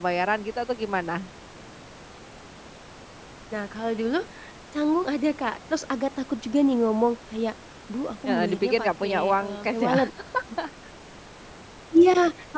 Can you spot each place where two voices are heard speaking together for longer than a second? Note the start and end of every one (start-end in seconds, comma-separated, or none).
8.3-9.9